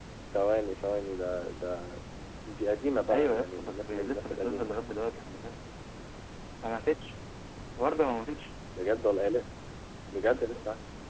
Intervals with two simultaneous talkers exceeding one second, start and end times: 3.1-4.7

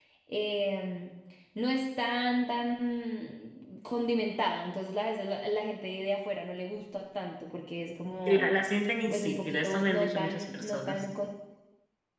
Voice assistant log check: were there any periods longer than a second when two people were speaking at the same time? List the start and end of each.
9.1-11.0

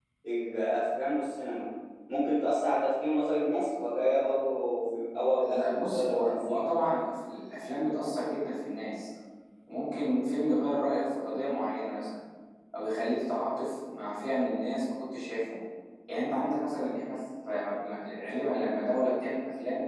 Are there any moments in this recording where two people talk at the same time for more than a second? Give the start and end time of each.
5.4-6.6

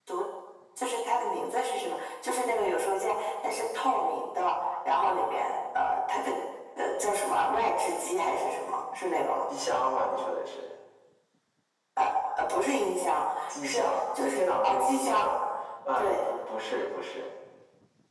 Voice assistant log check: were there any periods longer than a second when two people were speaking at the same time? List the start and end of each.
13.6-15.2

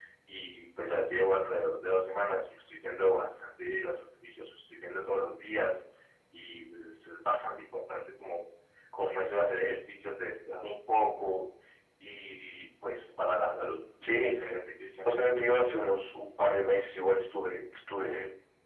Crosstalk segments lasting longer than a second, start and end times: none

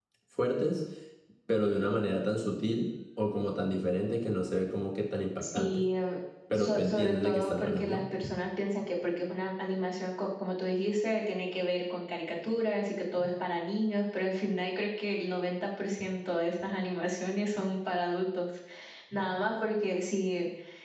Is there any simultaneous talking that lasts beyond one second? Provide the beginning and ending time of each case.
6.5-8.0

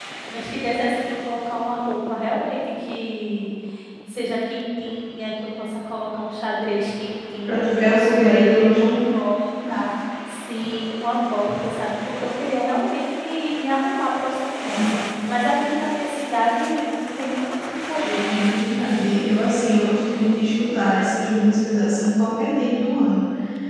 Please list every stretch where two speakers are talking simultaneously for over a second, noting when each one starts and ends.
7.5-8.9

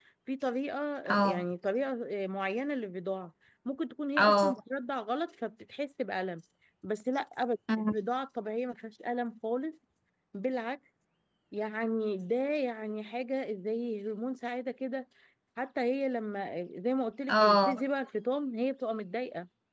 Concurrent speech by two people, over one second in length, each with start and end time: none

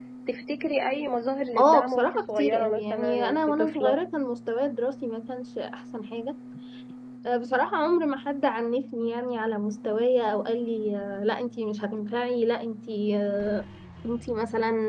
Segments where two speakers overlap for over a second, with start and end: 1.6-4.0

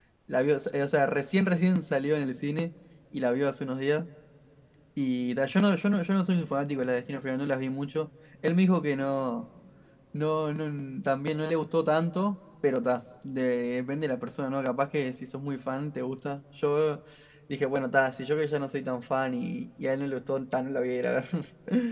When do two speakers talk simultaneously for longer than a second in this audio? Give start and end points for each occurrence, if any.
none

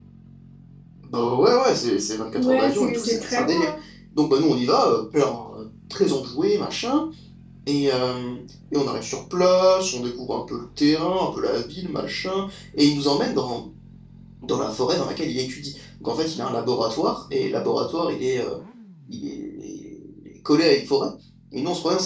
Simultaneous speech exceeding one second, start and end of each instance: 2.4-3.7

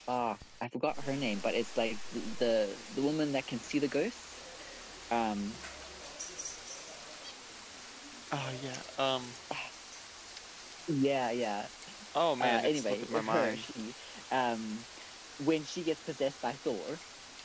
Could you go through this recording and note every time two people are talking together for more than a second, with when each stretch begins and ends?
12.4-13.6

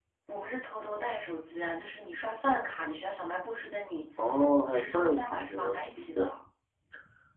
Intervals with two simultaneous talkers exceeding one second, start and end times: 4.7-6.3

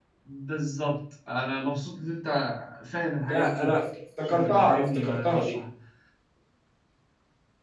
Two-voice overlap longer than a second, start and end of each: 4.2-5.6

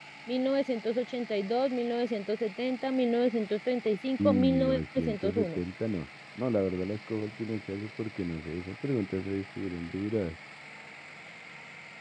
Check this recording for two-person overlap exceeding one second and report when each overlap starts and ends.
4.2-5.6

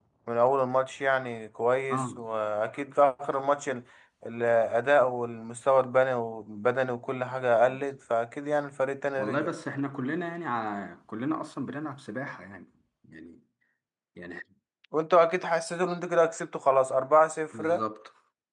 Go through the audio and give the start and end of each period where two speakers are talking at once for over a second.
none

